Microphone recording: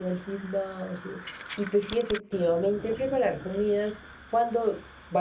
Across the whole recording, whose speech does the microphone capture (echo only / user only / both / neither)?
user only